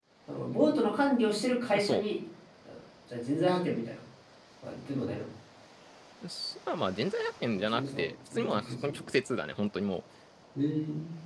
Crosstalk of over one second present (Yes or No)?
Yes